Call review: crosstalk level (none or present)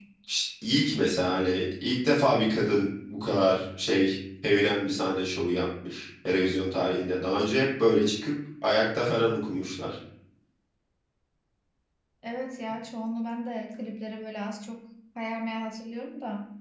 none